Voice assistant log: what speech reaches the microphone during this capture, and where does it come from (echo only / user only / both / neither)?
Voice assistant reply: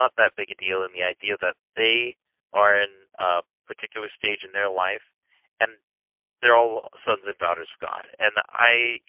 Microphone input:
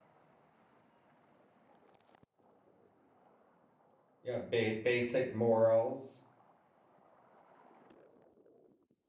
user only